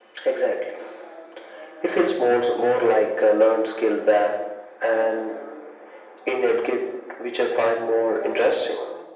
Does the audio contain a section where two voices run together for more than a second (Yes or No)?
No